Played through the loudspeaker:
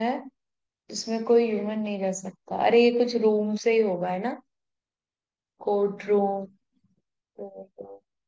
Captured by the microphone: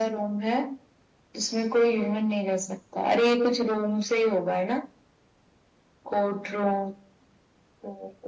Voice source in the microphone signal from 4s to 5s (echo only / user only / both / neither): echo only